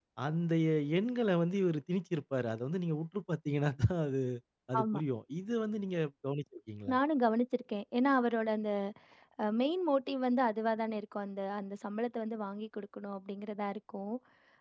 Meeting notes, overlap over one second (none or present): none